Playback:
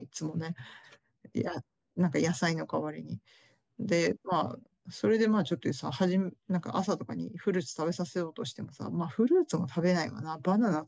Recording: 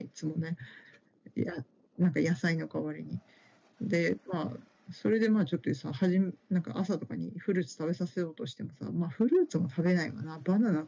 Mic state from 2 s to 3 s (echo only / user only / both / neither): echo only